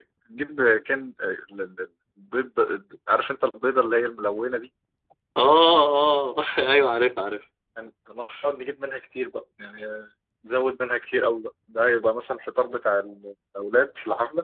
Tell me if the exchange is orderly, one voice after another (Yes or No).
Yes